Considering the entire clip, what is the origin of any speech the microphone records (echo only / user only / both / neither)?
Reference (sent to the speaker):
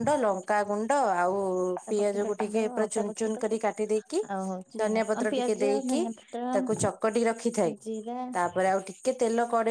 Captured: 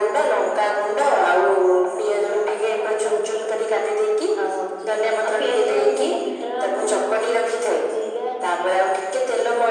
echo only